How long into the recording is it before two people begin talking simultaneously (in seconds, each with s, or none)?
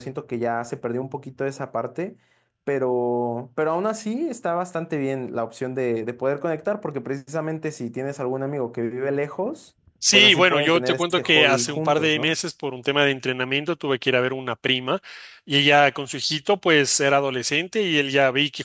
10.0 s